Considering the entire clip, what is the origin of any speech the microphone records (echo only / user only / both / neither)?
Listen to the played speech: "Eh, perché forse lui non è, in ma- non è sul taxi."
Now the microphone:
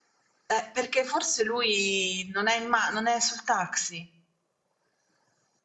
echo only